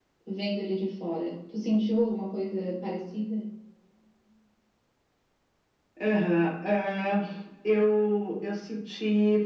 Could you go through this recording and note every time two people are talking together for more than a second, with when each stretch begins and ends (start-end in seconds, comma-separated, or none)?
none